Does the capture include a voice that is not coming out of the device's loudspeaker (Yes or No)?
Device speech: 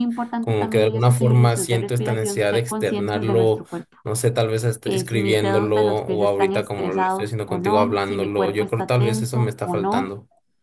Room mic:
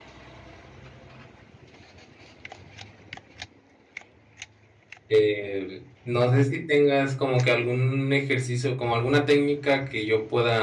Yes